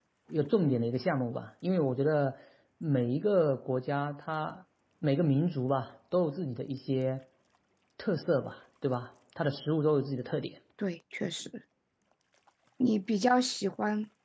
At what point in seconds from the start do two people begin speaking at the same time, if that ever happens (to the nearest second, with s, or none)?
none